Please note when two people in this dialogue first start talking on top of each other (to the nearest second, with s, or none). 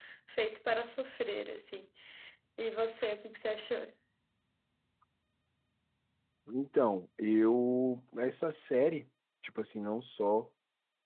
none